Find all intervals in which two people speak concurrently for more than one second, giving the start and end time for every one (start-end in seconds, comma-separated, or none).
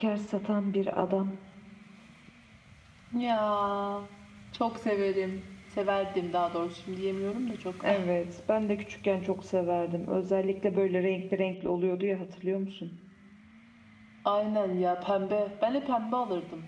none